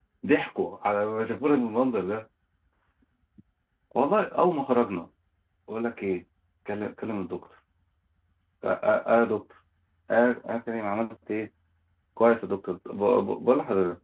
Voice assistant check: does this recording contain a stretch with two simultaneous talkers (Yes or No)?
No